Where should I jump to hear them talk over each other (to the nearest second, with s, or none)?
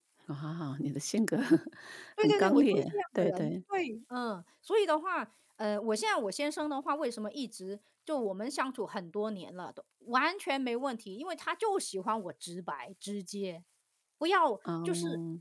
2 s